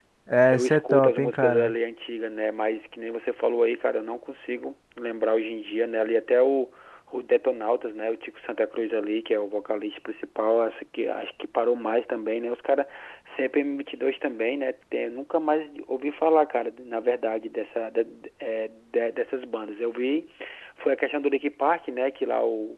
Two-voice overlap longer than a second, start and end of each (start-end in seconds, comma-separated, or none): 0.5-1.7